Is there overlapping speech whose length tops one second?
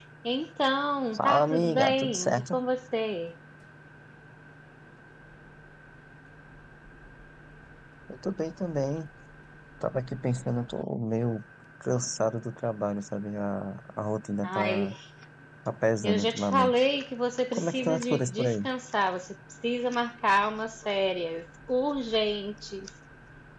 Yes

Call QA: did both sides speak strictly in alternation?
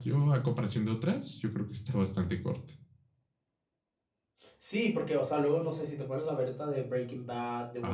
Yes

